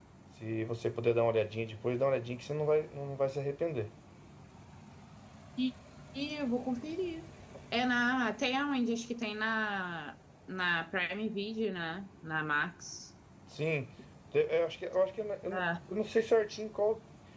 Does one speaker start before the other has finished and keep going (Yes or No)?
No